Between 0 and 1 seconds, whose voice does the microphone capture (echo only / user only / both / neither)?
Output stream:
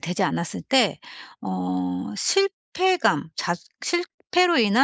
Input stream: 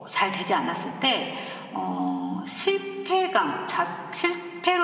echo only